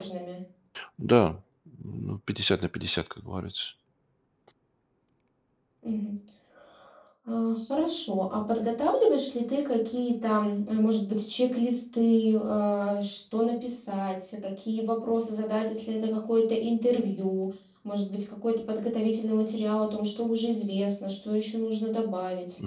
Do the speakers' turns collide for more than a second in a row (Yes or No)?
No